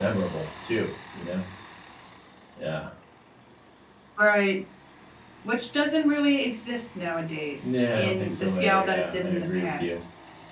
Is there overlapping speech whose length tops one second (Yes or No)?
Yes